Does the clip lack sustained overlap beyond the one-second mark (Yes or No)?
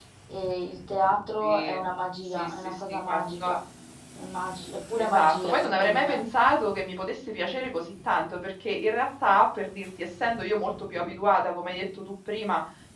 No